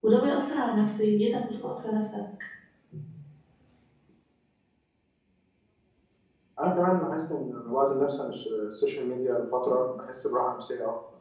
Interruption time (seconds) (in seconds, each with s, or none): none